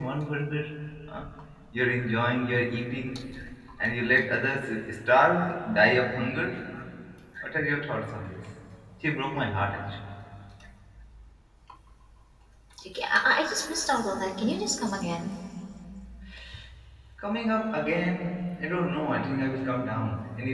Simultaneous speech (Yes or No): No